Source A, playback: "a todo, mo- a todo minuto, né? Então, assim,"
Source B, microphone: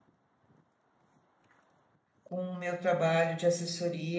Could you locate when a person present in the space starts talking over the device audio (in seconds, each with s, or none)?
2.2 s